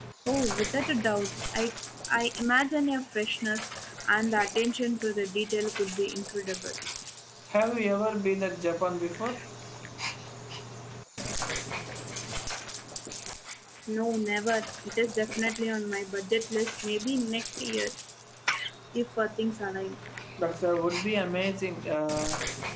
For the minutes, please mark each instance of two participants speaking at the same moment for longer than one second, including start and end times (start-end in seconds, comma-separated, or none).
none